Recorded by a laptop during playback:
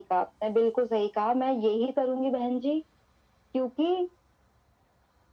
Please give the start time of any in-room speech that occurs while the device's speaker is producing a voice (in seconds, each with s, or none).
none